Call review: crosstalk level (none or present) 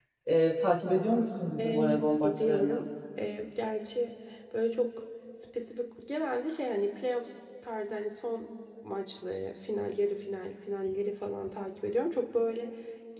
present